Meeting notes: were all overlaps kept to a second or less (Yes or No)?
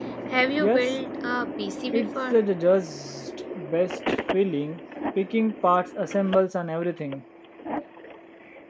Yes